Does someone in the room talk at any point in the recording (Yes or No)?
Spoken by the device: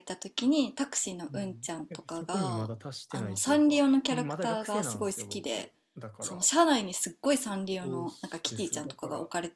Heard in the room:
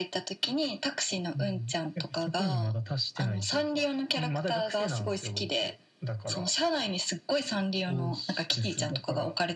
No